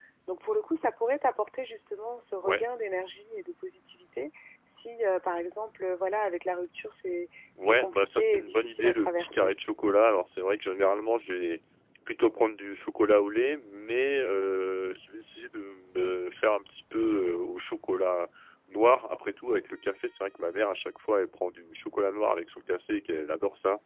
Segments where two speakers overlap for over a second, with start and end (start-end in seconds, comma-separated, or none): 7.6-9.5